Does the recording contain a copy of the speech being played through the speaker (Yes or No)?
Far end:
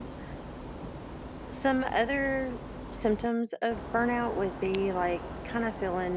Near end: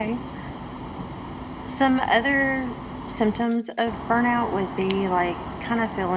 Yes